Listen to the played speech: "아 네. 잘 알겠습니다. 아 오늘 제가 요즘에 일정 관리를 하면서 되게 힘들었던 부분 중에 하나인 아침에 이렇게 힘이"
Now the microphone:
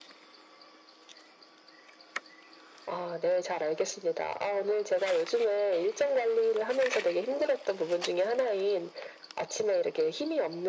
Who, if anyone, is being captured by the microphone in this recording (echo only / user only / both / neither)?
echo only